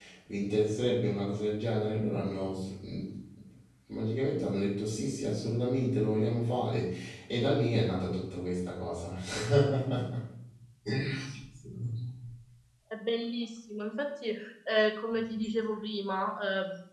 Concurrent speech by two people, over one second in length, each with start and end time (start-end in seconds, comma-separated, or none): none